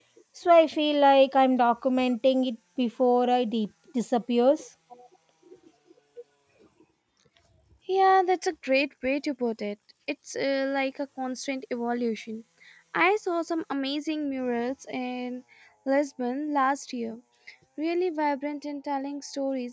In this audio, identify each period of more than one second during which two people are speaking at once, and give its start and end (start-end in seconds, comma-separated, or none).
none